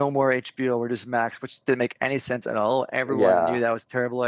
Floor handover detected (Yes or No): No